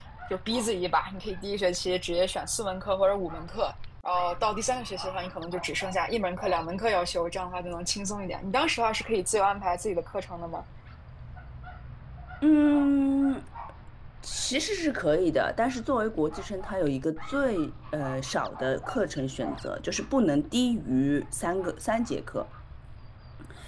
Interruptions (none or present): none